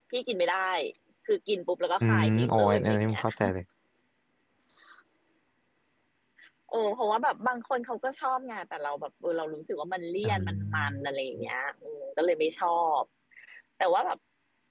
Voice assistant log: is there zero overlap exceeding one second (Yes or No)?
No